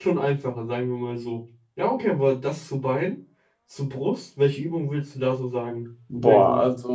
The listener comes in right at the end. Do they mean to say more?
Yes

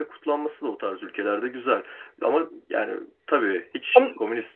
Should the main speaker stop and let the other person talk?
No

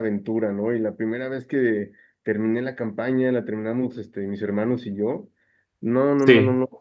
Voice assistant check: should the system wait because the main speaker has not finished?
Yes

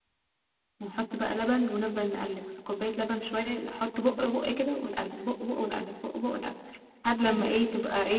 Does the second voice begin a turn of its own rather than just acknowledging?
No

